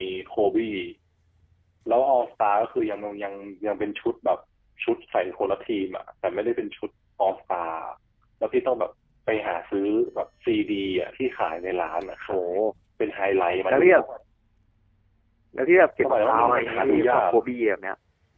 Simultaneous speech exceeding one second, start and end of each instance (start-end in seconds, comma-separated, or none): 16.0-17.3